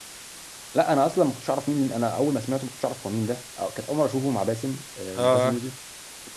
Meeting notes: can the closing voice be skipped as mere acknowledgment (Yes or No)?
Yes